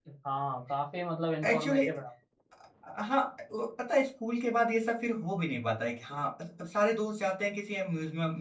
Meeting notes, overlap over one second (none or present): none